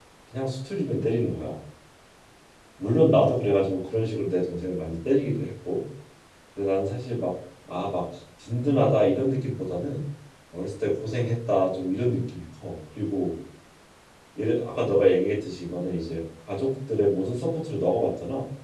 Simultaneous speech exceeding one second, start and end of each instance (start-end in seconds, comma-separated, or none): none